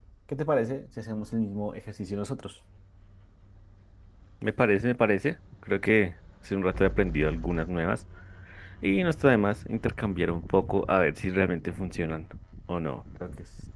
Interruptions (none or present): none